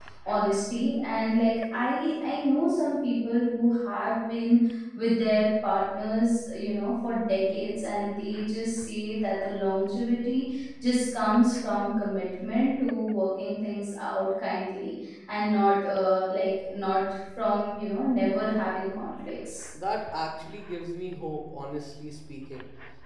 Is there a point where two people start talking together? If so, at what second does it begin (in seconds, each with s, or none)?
none